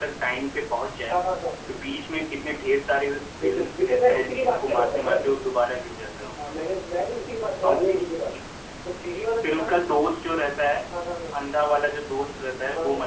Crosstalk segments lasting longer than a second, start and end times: 3.4-5.3

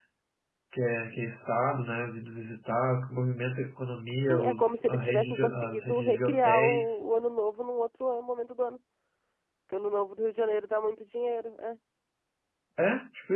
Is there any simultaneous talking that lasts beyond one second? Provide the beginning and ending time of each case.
4.2-7.0

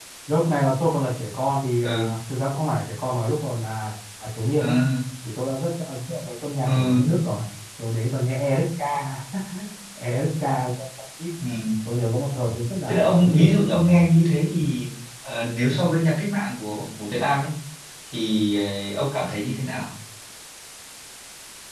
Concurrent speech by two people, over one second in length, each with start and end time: 12.9-14.2

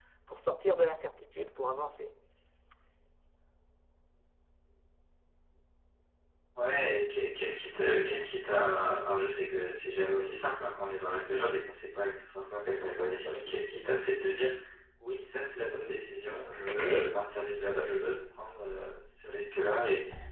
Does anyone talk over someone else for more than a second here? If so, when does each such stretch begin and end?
none

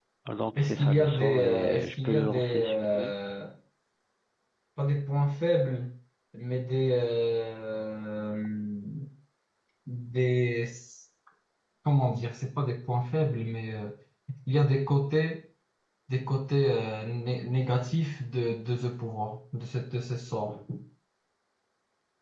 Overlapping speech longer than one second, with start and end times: 0.6-3.1

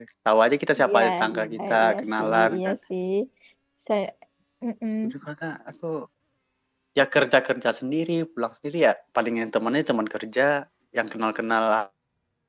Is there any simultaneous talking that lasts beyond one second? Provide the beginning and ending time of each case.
0.8-2.8

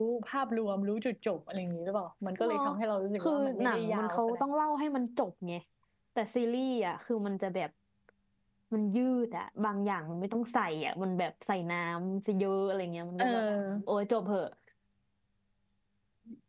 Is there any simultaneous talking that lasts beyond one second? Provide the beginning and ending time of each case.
3.2-4.4

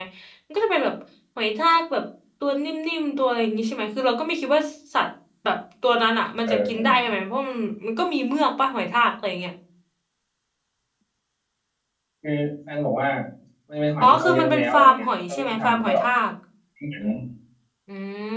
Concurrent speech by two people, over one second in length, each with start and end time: 14.0-16.0

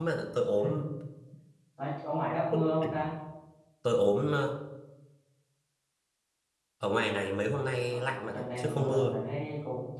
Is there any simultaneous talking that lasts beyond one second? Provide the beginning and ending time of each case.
7.9-9.2

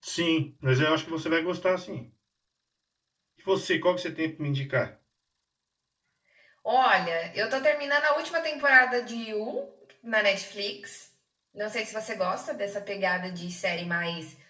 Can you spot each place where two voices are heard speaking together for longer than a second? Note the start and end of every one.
none

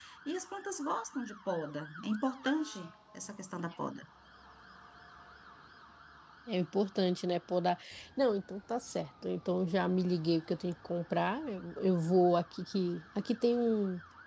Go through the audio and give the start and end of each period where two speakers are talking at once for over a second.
none

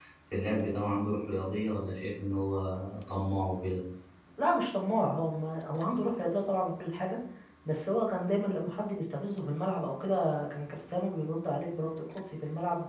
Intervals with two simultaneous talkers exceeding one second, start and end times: none

